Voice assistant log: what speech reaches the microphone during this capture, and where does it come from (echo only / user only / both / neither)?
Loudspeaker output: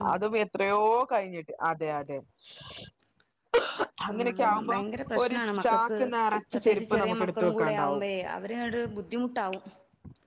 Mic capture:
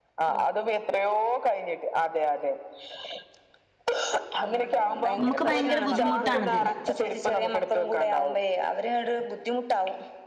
both